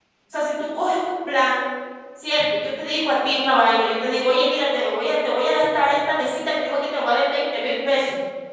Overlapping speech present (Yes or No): No